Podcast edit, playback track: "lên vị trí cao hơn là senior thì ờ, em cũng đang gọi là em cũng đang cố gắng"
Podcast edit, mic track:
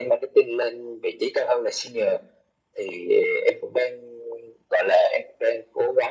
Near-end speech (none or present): none